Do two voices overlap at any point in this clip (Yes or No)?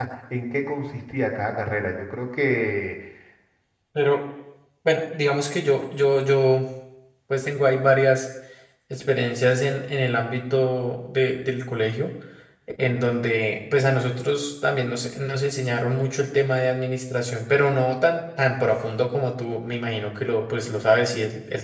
No